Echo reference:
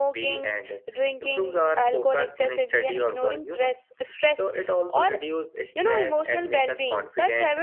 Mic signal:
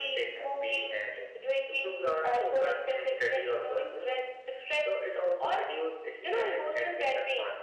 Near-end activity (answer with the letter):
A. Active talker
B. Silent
B